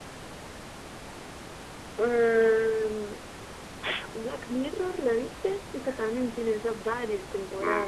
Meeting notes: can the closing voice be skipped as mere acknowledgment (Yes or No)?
No